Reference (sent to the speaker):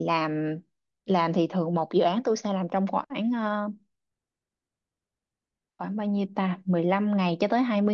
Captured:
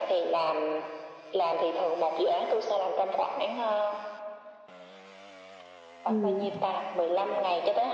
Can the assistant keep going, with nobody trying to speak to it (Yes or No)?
No